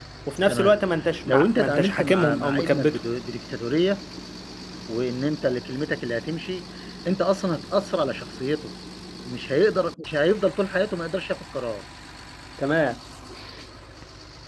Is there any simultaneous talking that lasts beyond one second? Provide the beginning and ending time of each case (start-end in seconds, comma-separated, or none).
1.2-3.0